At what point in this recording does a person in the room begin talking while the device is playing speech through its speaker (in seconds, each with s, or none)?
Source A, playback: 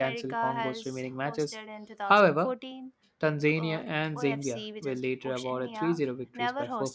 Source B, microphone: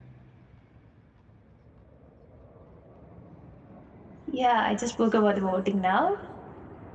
4.3 s